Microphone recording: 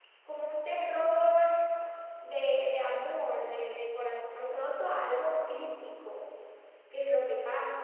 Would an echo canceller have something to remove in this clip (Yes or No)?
No